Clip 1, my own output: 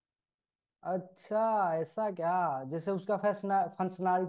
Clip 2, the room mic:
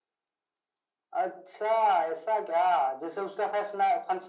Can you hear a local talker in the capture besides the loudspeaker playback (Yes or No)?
No